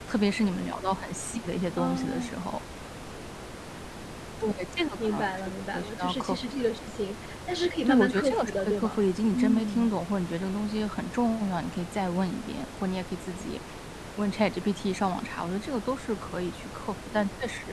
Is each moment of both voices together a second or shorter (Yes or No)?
No